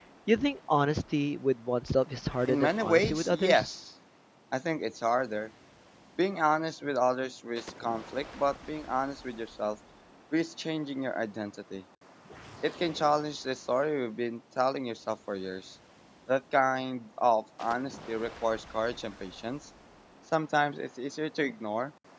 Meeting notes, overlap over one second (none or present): present